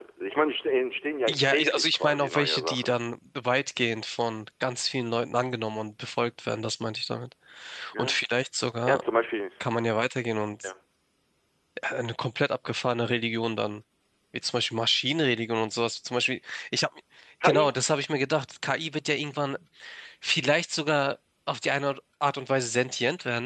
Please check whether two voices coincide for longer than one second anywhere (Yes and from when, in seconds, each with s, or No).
Yes, from 1.3 s